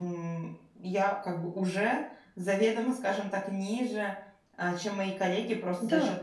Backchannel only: Yes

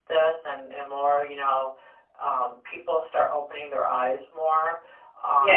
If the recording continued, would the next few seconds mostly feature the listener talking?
Yes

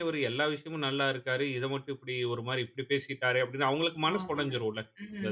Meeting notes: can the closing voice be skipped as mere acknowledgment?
No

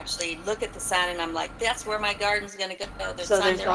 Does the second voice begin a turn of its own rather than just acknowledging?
Yes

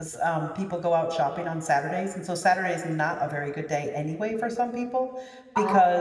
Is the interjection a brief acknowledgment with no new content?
Yes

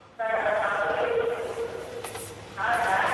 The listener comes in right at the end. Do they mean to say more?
No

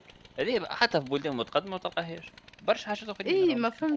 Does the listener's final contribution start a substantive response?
Yes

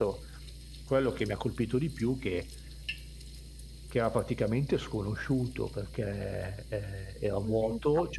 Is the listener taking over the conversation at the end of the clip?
No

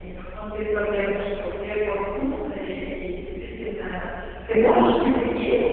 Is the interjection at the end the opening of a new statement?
No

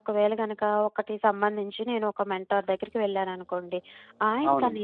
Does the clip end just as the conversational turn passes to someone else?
No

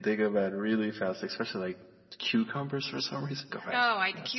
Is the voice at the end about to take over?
Yes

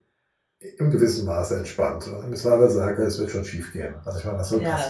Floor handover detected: Yes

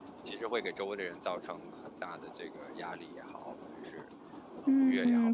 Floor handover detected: Yes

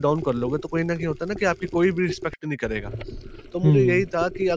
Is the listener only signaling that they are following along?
Yes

